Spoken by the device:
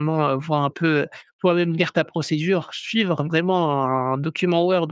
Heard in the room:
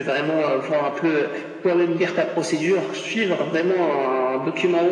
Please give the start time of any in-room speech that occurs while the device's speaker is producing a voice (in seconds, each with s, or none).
none